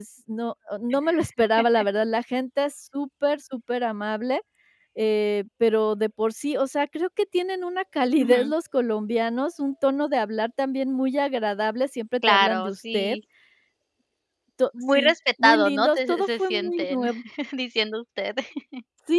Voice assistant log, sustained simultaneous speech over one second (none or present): present